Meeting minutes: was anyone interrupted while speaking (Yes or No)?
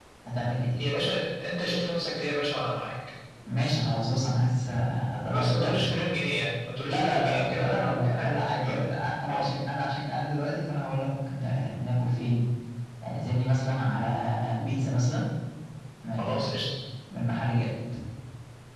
Yes